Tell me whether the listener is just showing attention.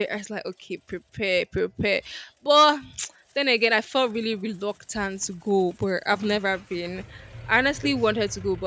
Yes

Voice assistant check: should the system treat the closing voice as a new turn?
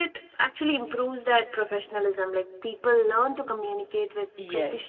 Yes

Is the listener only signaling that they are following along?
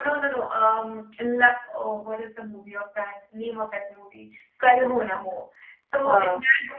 Yes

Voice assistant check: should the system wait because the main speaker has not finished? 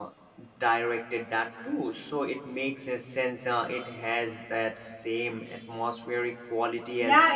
No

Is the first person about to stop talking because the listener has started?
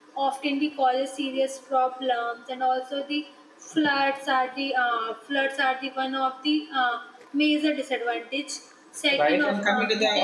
Yes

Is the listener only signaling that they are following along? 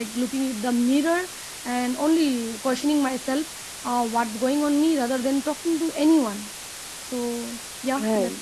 No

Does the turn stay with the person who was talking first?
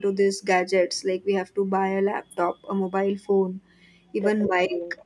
Yes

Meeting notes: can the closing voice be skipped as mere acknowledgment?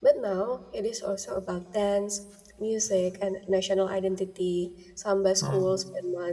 Yes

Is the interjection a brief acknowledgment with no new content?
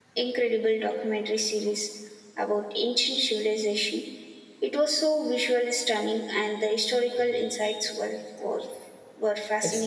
No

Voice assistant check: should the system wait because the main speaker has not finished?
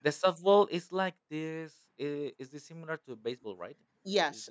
No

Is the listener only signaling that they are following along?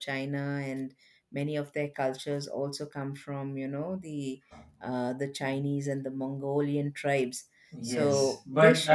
No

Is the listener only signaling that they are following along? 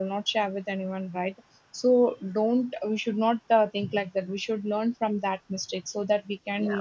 Yes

